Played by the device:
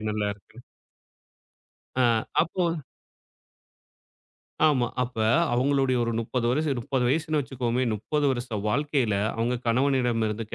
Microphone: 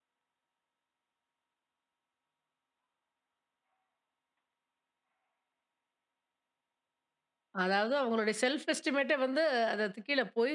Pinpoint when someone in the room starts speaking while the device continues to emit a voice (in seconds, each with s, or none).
7.6 s